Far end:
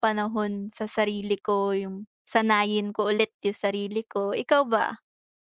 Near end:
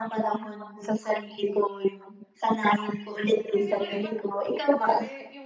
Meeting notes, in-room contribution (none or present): present